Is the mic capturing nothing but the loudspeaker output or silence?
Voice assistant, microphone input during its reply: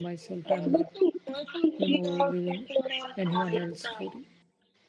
No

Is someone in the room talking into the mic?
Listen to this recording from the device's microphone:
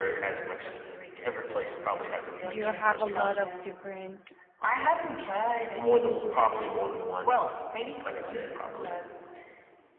Yes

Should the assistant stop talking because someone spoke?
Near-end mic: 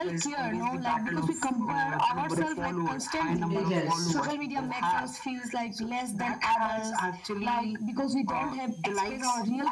Yes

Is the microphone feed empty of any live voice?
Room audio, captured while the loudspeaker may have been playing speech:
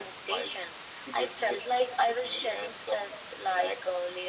Yes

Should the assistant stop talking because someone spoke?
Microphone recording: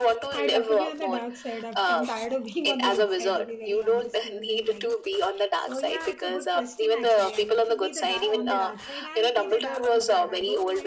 Yes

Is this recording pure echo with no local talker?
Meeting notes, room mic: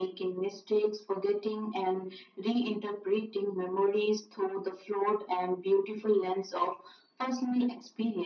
Yes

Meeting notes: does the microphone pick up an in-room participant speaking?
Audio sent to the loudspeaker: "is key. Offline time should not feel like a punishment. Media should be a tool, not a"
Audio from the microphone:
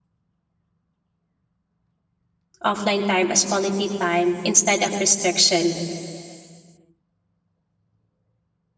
Yes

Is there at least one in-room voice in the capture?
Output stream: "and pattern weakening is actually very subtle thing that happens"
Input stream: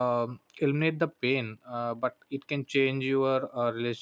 Yes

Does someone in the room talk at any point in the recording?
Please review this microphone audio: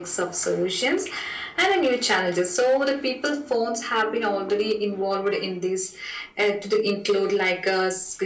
No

